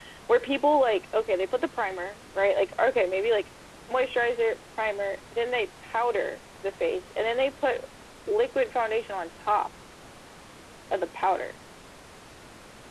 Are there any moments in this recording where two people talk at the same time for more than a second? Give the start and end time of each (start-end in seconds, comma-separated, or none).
none